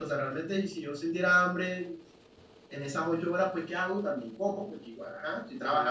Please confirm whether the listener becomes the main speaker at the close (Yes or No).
No